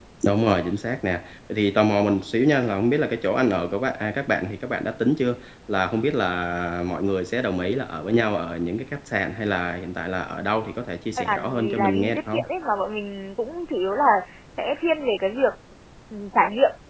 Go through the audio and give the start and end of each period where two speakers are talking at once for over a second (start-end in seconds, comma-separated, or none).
11.2-12.4